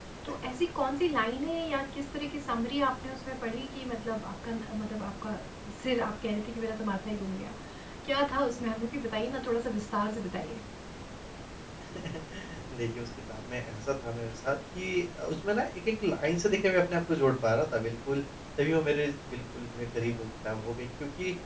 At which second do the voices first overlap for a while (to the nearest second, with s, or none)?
none